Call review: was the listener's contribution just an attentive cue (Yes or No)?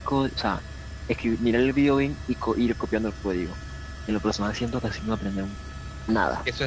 No